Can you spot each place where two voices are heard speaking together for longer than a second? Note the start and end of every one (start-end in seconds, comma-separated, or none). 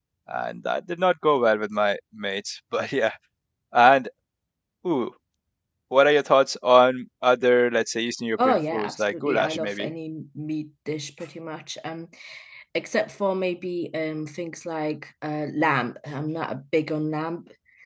8.4-9.9